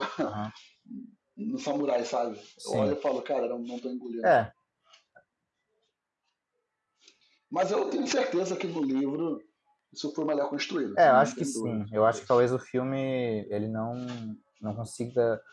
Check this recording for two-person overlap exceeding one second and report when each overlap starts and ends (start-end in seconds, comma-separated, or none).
11.0-12.4